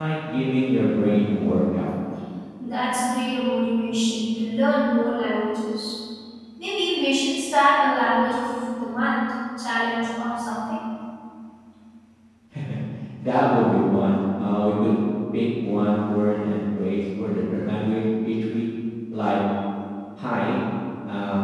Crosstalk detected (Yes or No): No